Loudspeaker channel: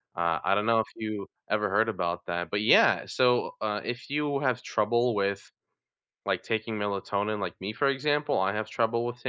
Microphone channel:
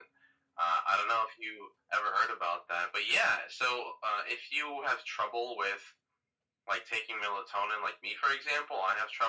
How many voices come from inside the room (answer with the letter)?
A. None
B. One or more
A